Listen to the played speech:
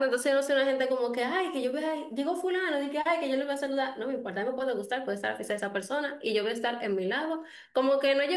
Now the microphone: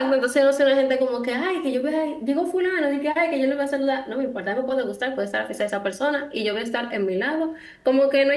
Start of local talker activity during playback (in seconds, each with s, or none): none